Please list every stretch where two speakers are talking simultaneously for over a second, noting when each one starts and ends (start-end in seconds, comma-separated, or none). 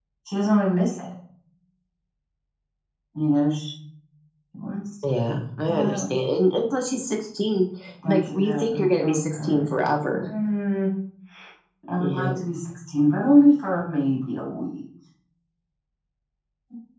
8.0-9.7